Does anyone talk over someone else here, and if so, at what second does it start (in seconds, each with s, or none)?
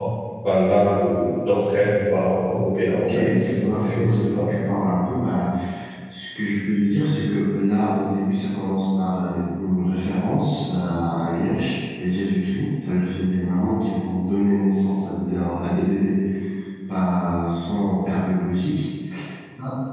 2.9 s